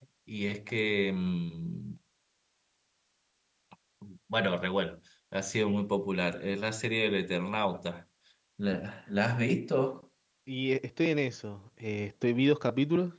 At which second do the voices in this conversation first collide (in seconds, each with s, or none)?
none